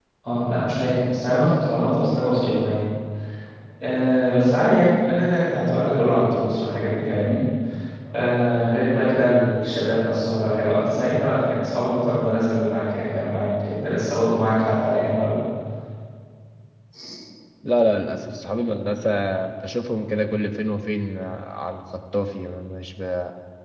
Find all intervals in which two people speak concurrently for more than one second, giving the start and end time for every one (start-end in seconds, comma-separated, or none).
none